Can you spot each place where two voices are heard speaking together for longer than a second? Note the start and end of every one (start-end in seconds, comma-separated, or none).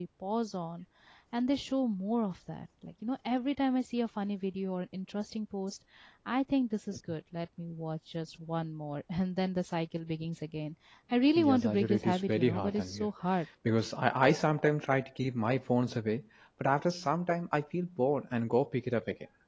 11.3-13.1